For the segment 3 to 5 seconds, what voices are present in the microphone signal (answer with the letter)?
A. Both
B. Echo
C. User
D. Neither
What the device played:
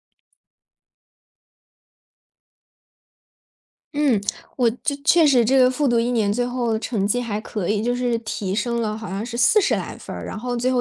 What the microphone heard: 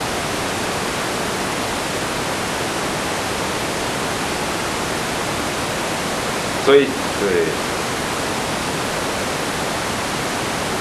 D